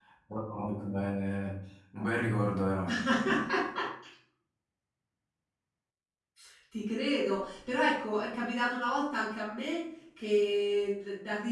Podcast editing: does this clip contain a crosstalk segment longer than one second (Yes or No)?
No